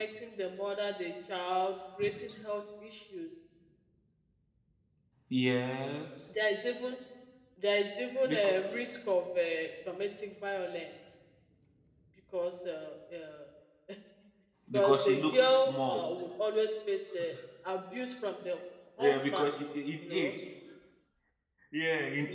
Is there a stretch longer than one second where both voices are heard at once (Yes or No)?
Yes